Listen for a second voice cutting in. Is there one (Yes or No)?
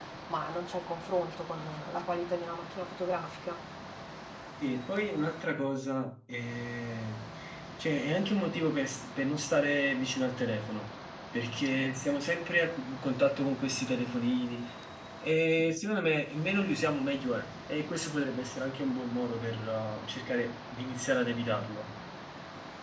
No